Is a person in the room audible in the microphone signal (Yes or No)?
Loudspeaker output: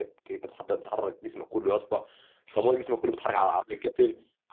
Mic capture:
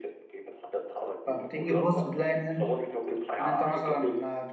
Yes